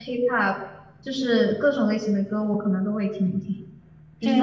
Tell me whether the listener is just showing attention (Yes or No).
Yes